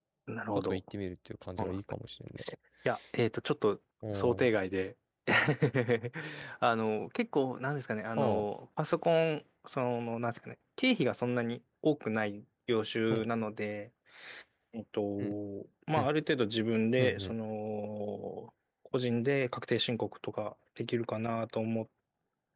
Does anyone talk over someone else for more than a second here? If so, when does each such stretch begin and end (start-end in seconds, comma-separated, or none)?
none